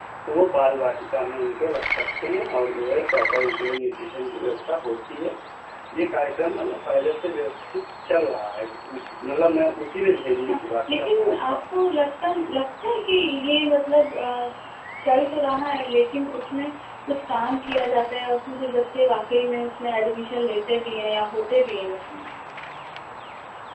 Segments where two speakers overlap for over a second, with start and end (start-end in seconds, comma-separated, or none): 10.4-11.6